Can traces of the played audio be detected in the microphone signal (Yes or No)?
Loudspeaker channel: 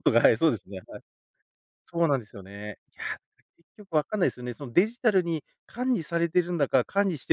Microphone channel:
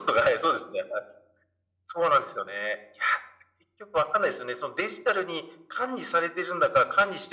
Yes